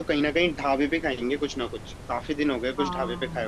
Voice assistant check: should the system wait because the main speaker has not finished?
No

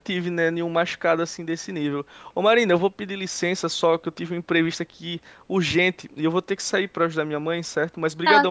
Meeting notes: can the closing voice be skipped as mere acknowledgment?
No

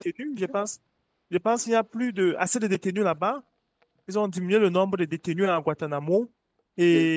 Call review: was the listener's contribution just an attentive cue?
Yes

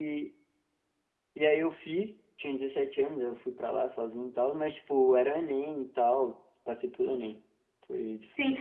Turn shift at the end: Yes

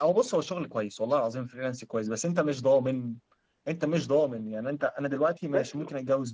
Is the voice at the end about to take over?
No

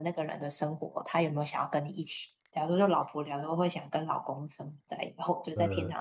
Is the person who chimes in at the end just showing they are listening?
Yes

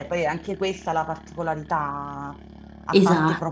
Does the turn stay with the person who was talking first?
Yes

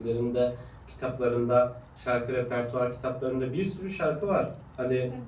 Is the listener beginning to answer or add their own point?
No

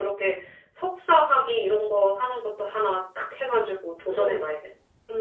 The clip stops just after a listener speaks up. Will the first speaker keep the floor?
No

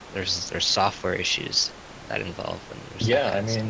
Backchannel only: No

